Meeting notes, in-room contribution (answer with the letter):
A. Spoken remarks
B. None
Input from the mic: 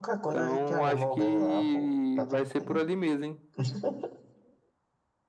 A